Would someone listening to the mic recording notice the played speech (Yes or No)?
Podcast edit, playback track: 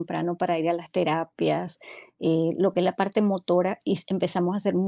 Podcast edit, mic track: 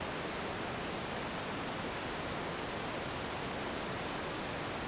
No